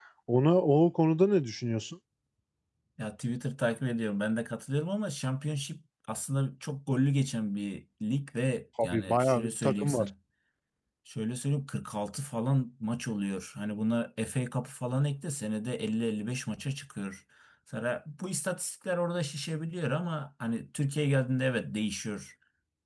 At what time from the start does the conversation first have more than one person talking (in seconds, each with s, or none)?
8.8 s